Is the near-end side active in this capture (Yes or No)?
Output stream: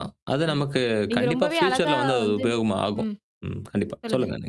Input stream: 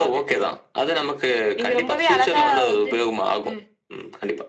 No